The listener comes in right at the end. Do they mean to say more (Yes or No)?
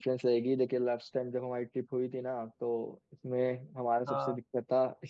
No